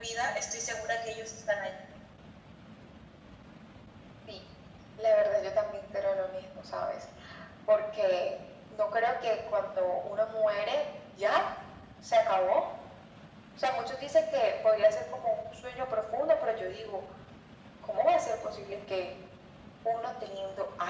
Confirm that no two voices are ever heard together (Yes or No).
Yes